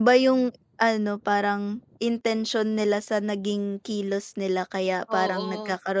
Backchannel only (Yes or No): Yes